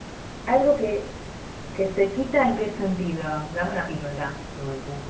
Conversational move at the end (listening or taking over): taking over